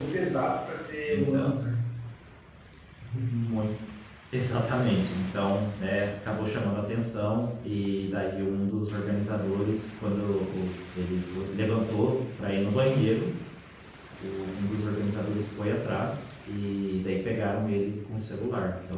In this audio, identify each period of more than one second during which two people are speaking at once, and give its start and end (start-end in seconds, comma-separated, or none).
none